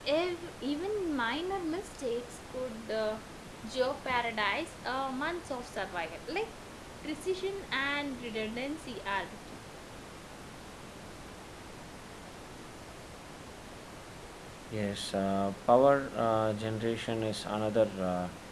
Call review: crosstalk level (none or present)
none